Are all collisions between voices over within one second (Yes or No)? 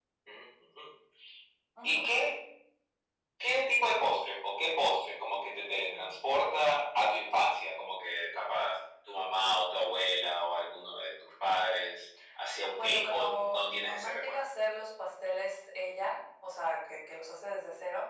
No